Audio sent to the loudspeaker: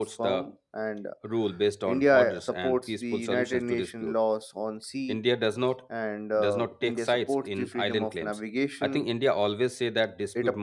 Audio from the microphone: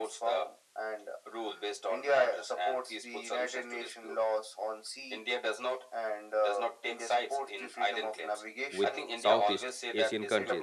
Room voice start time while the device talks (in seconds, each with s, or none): 8.8 s